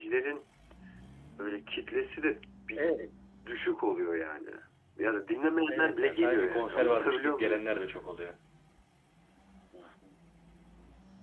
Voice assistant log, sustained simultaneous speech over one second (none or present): present